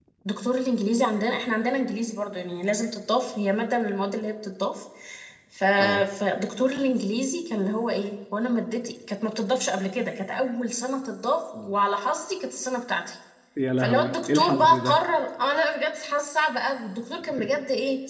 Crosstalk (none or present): present